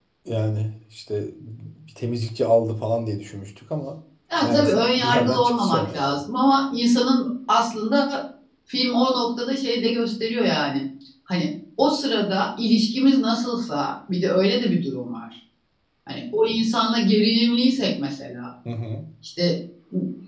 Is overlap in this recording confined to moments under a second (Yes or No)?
No